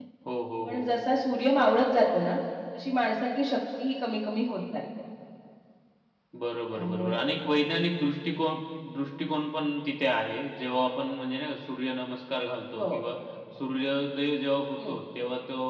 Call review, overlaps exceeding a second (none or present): none